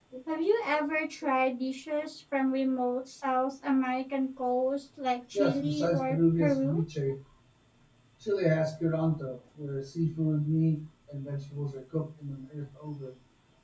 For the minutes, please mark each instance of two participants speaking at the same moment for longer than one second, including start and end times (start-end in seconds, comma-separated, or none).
5.3-6.8